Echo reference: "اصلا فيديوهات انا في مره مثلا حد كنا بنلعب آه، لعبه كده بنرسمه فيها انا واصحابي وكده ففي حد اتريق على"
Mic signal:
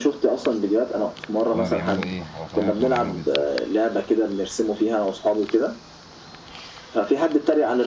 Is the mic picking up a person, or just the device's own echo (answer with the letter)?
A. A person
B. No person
A